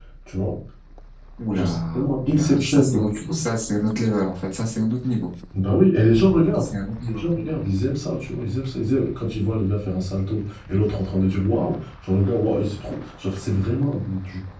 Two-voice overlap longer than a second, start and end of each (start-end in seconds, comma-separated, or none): 1.5-3.3